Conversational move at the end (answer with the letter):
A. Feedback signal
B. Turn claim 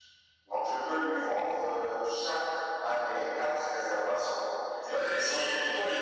B